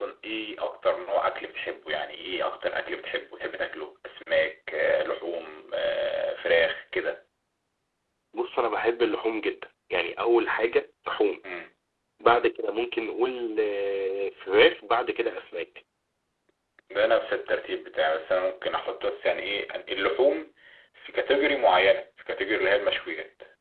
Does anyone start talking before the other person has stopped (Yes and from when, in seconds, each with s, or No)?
No